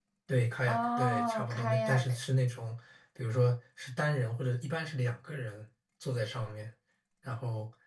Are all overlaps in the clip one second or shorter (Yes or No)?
No